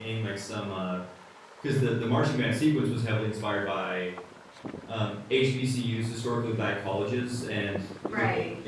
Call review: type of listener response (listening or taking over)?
listening